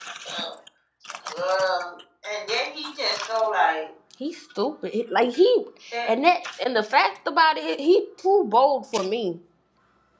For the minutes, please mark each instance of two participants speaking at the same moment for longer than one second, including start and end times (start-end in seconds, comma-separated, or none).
none